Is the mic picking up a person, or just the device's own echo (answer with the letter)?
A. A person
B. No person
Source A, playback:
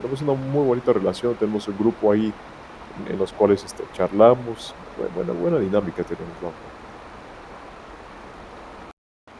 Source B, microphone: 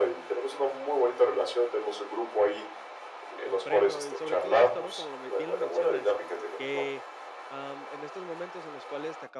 A